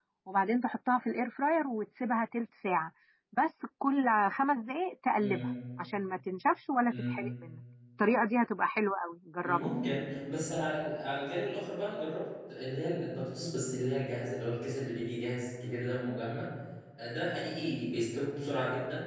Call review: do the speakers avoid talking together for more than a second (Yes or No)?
Yes